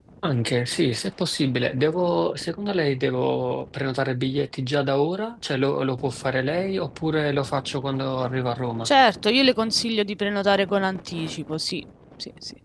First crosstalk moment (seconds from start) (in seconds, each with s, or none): none